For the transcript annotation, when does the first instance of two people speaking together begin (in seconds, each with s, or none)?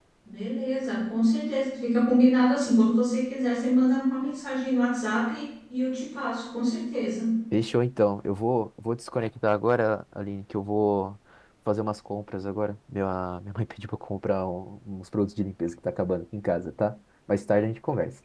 none